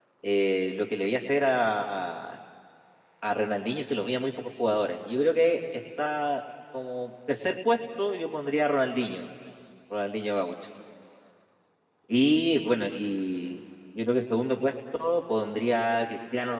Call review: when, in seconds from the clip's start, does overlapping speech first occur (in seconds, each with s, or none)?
none